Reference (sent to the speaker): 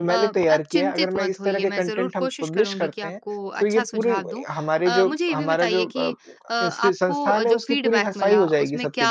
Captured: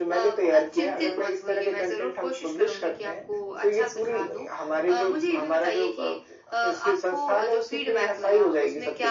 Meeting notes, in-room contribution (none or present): none